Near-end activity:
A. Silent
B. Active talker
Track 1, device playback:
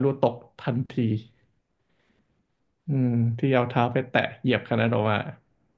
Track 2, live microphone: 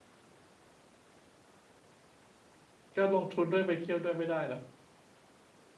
B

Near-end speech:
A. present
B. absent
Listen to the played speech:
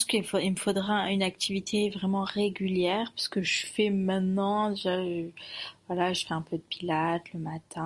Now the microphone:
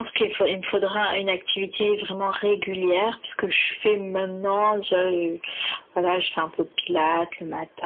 B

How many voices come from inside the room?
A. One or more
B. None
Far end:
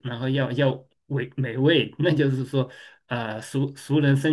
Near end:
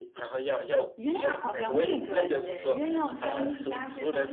A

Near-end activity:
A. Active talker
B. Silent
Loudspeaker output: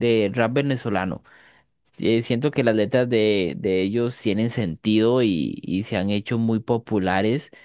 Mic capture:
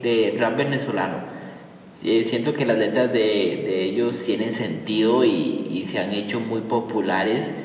B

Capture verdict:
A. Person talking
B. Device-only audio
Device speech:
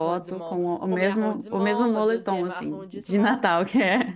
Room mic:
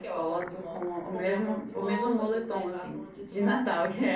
B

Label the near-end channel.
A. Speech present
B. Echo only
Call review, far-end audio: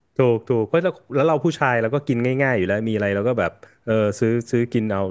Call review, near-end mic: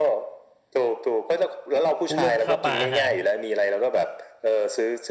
A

